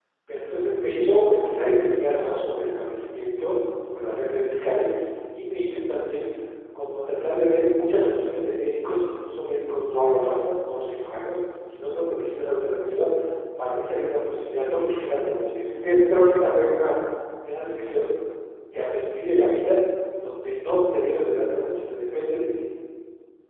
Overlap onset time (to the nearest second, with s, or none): none